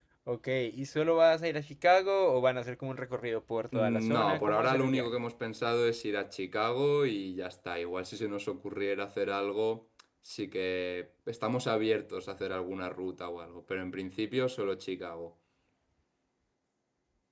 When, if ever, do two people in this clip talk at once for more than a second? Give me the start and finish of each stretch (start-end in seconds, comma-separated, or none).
3.7-5.1